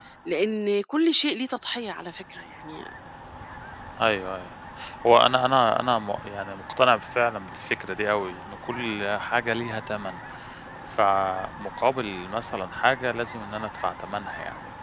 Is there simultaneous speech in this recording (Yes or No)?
No